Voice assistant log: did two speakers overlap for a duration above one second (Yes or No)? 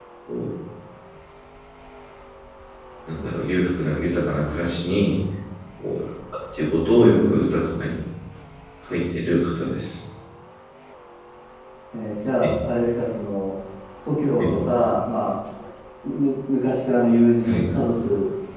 No